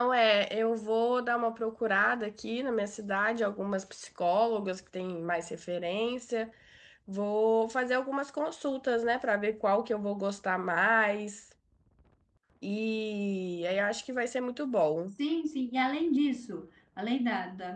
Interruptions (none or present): none